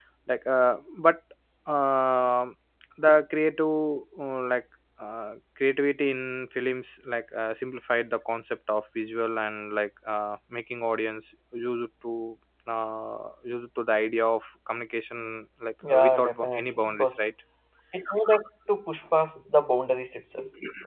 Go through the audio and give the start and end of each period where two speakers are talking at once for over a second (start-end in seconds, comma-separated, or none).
15.9-17.2